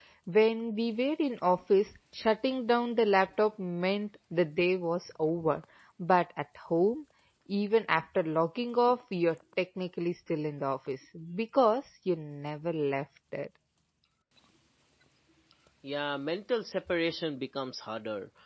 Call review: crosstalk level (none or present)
none